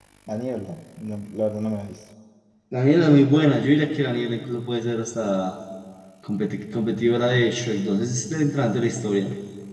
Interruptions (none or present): none